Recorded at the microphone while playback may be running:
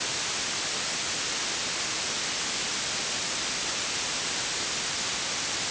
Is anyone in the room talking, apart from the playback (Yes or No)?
No